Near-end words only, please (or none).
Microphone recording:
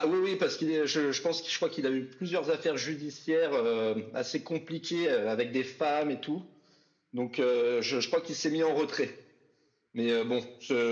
none